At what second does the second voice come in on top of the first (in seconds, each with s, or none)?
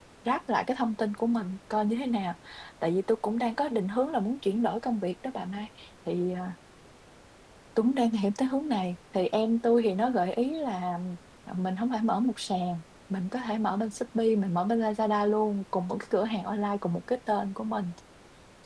none